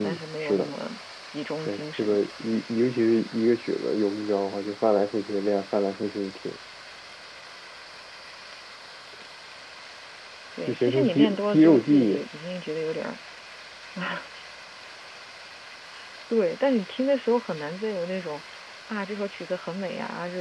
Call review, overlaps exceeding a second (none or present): present